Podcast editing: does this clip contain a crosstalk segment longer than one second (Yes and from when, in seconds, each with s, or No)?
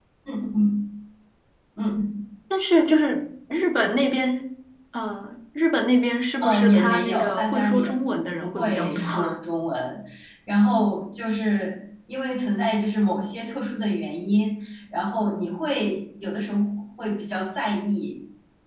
Yes, from 6.4 s